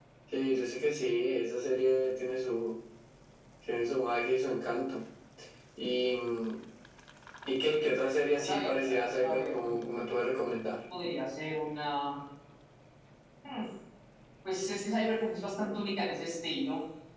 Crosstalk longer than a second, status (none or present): present